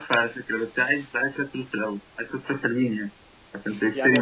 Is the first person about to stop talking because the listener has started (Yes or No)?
Yes